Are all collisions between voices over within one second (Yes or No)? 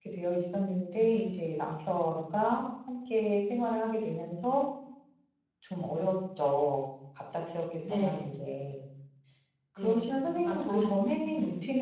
No